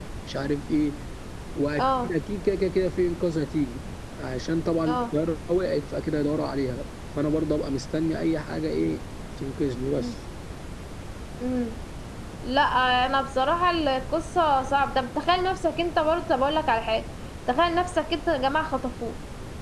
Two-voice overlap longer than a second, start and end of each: none

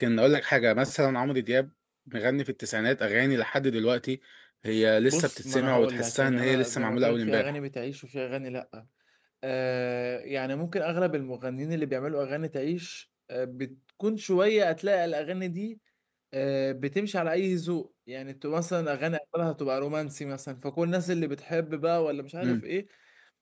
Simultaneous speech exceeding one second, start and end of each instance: 5.0-7.5

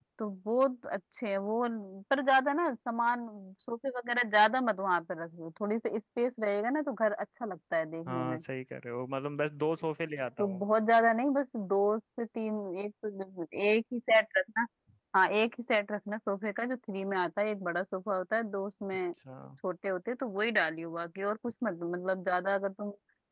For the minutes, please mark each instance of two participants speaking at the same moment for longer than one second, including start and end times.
none

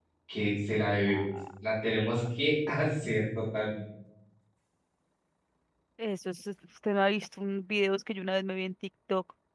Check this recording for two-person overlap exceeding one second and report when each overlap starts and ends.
none

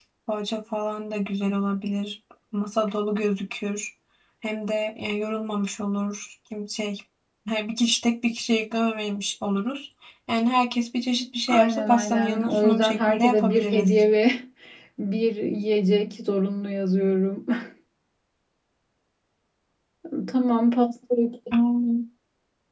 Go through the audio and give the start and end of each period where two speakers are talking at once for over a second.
11.5-13.9

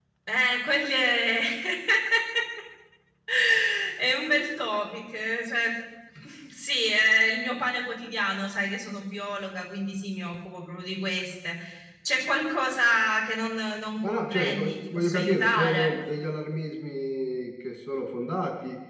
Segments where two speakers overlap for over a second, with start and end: 14.0-15.9

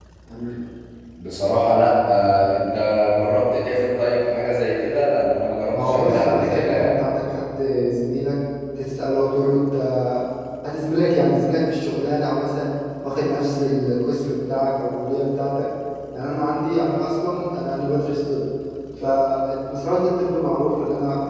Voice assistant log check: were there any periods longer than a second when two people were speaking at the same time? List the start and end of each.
5.7-7.0

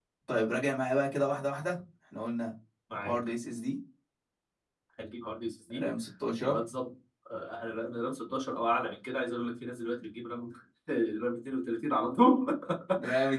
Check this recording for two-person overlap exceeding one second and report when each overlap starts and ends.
none

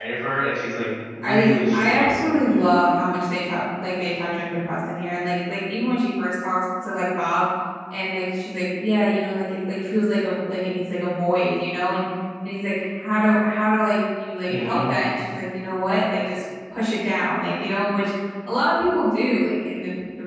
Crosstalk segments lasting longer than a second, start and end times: 1.2-2.6

